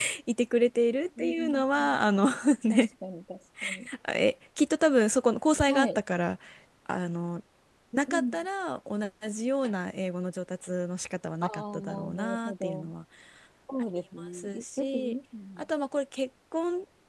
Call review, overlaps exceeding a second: present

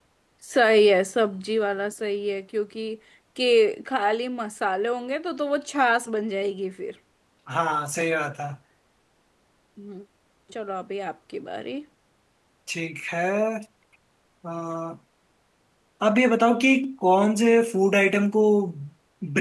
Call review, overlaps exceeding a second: none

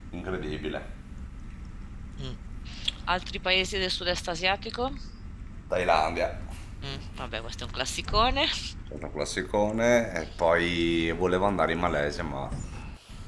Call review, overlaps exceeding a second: none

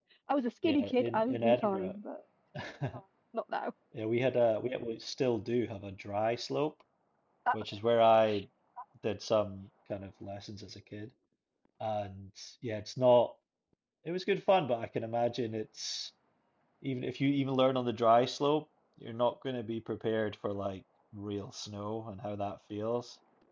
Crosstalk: present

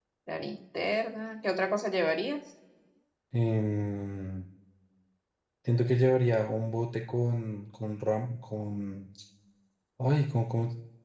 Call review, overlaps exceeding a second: none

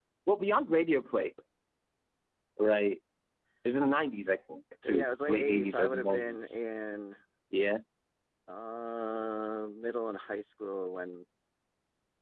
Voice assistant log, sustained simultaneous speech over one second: present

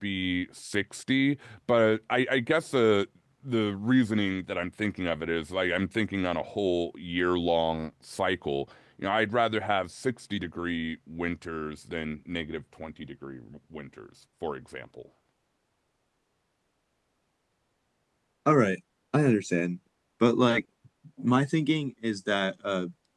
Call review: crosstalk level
none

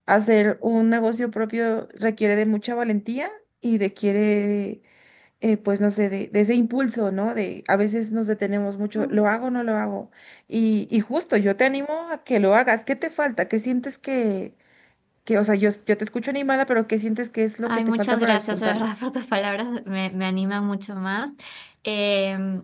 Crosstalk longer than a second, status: present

